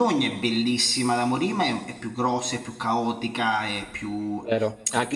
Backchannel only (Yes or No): No